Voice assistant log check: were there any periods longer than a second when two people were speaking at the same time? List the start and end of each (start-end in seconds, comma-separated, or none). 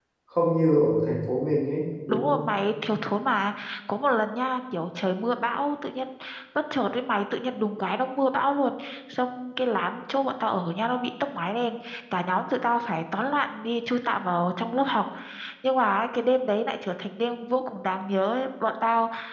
none